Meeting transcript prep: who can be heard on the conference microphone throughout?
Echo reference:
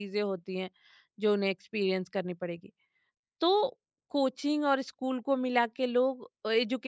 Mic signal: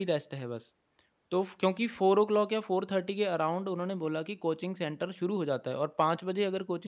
user only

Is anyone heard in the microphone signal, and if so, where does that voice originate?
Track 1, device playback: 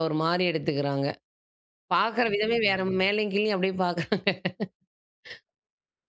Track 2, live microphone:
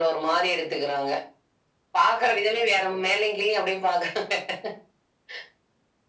echo only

